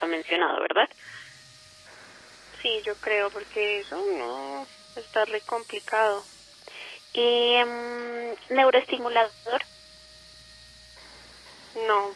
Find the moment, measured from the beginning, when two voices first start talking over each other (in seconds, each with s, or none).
none